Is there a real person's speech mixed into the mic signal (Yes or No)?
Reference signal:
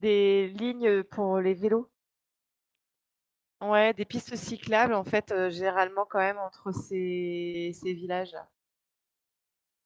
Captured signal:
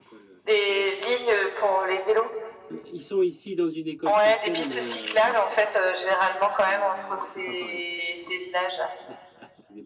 Yes